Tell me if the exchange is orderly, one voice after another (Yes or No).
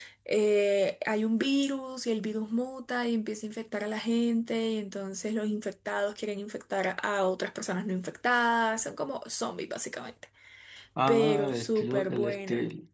No